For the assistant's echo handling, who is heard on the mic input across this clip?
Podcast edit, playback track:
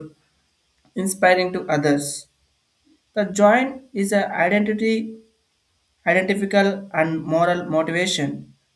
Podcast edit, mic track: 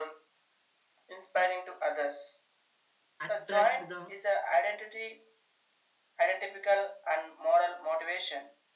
both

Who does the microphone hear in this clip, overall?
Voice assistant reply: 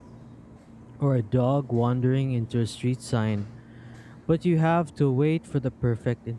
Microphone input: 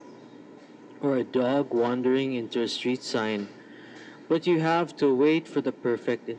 echo only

